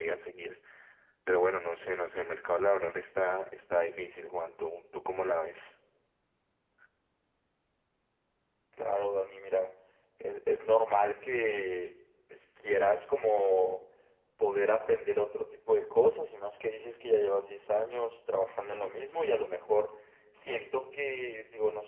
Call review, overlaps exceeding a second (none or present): none